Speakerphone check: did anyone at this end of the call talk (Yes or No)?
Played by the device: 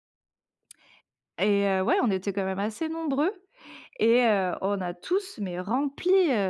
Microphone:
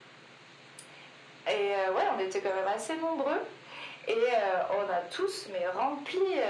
No